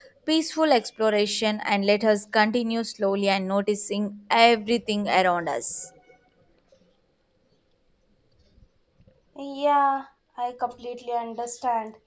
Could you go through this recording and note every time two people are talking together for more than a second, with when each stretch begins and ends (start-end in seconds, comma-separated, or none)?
none